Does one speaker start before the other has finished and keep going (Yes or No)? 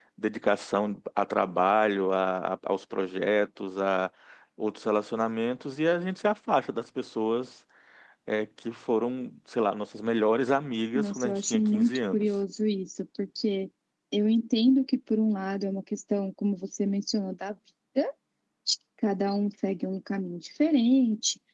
Yes